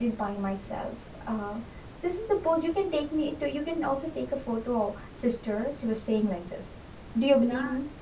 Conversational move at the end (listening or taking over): taking over